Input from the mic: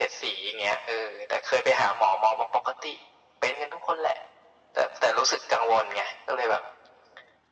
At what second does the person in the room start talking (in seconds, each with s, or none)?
none